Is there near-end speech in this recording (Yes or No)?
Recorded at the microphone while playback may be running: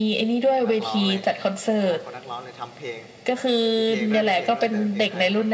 Yes